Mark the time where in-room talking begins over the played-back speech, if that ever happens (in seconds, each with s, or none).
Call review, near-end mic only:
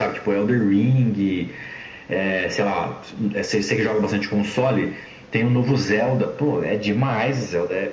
none